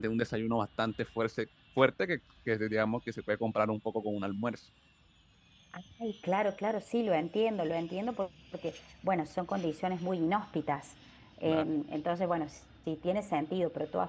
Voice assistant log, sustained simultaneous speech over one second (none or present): none